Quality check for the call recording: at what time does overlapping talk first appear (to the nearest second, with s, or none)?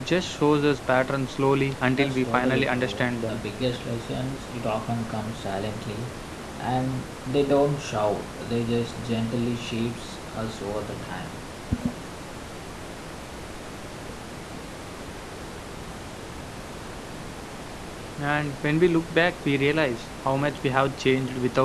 2 s